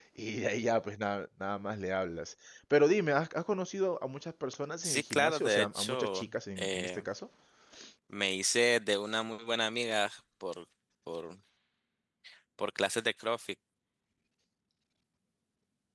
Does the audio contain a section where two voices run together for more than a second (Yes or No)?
Yes